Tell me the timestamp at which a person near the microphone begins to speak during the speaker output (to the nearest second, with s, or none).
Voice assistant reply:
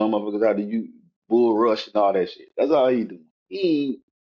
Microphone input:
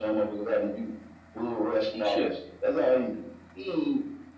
2 s